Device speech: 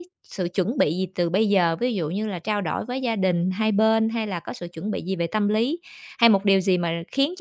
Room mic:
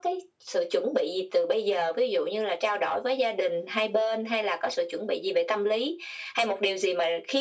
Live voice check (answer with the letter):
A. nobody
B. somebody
A